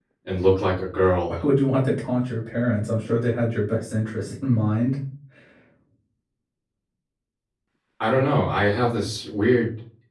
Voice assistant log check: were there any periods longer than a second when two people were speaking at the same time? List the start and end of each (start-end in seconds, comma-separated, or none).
none